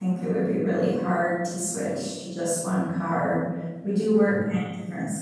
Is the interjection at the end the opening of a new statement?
No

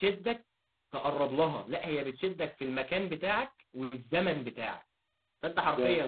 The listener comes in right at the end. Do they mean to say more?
No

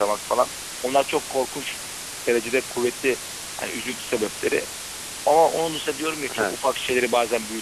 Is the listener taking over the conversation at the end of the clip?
No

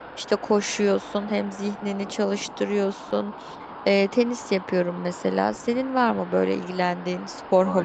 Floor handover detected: Yes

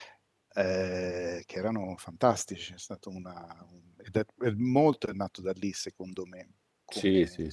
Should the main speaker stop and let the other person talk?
Yes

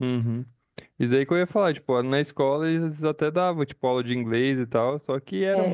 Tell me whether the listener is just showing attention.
No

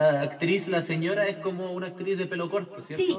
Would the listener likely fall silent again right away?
No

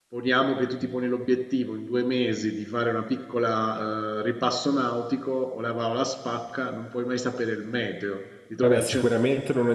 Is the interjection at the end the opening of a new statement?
Yes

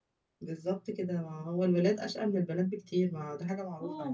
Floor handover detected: Yes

